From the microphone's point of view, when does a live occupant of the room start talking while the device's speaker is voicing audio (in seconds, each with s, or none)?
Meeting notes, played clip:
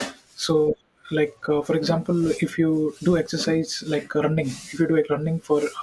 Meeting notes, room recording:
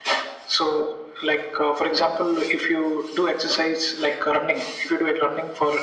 none